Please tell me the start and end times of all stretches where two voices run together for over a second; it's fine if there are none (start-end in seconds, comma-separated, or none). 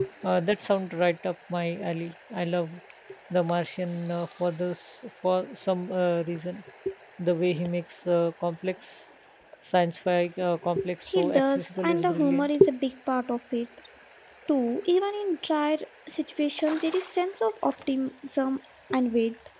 11.1-12.6